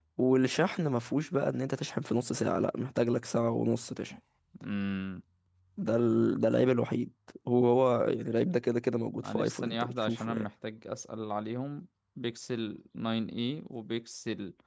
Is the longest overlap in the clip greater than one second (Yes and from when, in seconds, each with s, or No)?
Yes, from 9.1 s